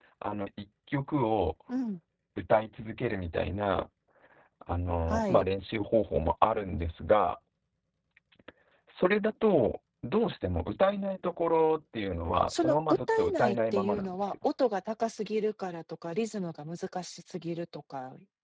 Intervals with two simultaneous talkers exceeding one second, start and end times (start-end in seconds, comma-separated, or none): 12.5-14.3